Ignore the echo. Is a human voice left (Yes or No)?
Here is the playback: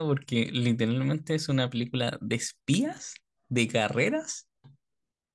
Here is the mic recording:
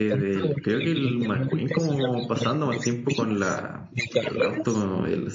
Yes